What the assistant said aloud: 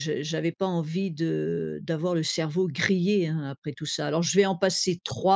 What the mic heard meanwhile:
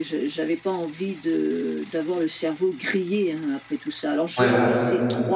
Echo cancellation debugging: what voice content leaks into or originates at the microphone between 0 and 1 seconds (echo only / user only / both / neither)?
echo only